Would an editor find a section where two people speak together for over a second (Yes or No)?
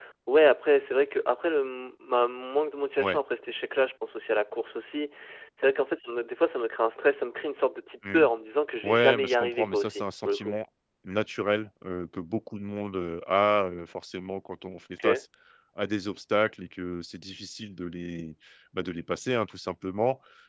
Yes